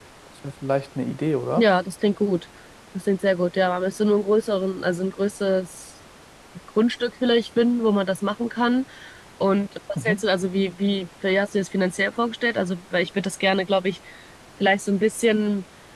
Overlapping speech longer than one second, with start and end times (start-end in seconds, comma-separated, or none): none